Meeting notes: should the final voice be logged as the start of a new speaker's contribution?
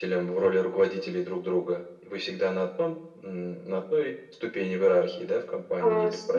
Yes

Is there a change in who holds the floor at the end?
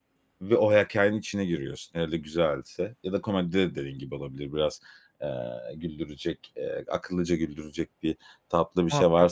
No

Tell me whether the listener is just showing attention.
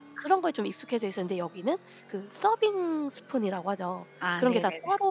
Yes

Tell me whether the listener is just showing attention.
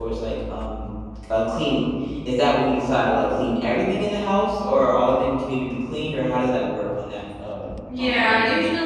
No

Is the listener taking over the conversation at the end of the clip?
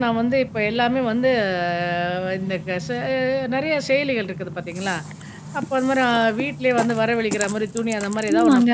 Yes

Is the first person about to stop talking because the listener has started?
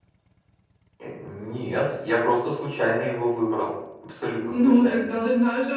Yes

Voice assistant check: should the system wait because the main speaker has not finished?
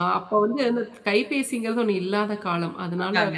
Yes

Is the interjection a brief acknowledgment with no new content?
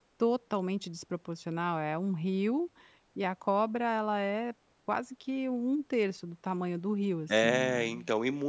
No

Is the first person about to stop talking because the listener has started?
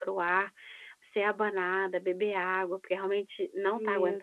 Yes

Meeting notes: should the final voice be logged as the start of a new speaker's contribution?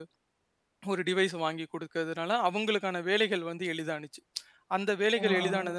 No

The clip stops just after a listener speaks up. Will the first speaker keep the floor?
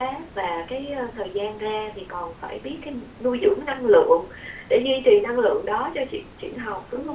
No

